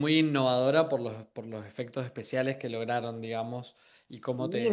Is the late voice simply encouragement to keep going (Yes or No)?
No